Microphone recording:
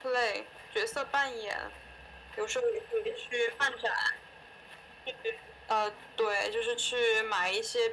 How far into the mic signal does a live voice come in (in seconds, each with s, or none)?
none